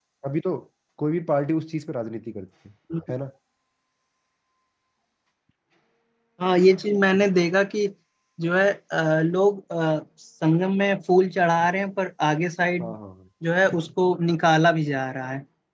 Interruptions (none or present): none